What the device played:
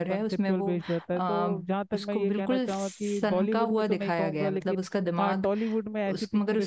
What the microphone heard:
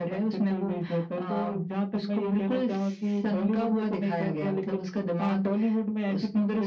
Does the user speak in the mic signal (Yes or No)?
No